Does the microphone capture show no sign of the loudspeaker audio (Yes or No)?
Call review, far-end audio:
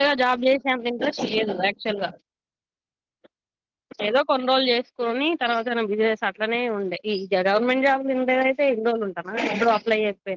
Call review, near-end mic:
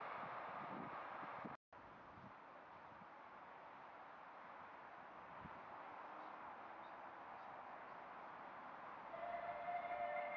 Yes